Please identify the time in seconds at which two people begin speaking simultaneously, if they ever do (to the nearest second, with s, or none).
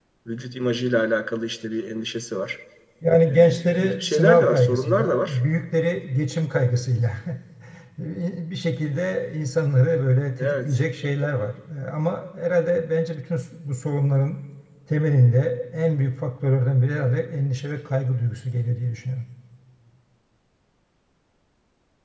3 s